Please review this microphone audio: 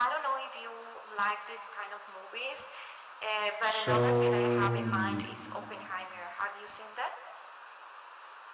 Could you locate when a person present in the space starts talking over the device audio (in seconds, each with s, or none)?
3.7 s